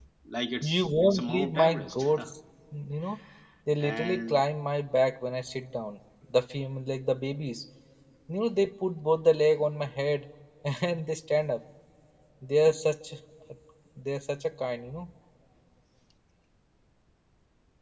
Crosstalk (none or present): present